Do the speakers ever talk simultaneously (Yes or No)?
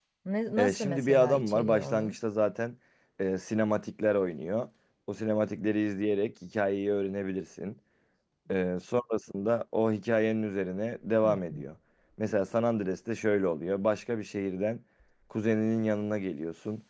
Yes